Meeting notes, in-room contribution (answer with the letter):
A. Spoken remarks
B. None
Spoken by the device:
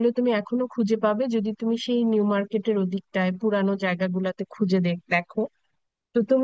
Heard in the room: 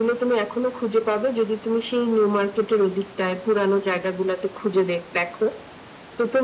B